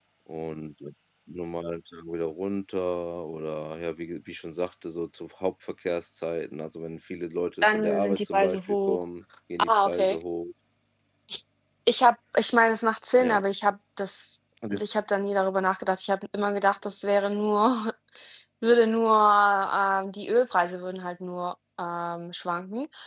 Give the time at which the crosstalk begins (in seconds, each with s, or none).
7.6 s